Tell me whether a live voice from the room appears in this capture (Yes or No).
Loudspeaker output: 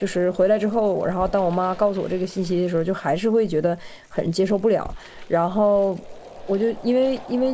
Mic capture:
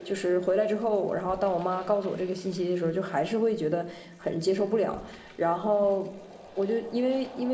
No